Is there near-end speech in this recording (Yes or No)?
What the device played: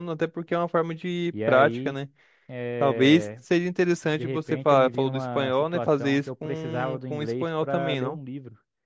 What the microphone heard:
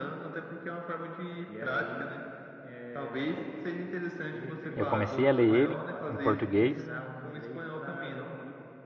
Yes